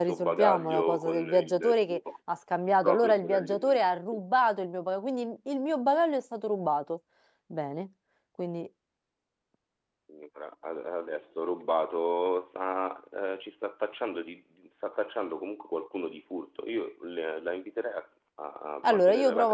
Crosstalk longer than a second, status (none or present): present